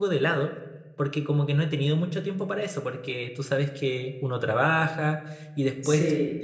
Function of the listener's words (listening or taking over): listening